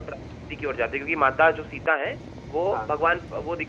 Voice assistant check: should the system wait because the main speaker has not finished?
Yes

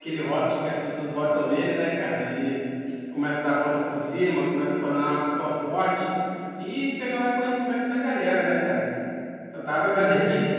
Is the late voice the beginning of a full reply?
No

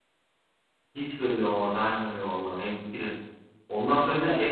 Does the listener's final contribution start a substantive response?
No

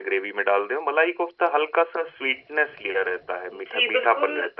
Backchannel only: No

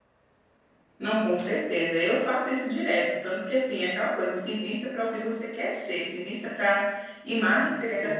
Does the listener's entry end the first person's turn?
No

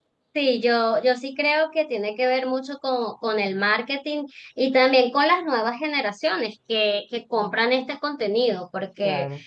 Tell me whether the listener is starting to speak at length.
No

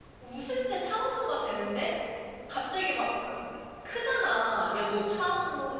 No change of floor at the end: Yes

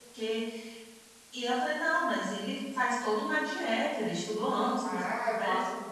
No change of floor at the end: No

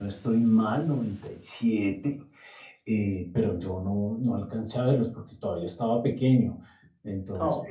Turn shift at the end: No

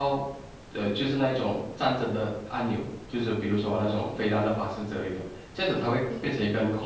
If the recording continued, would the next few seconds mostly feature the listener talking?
No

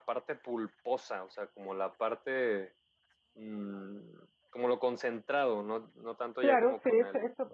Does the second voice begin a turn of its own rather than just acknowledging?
Yes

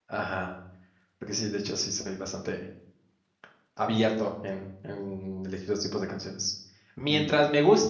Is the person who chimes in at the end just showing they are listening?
Yes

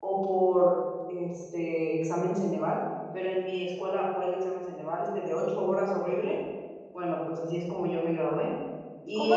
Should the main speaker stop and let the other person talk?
Yes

